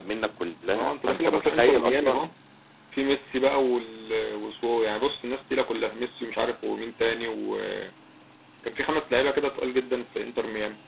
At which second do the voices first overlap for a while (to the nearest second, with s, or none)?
1 s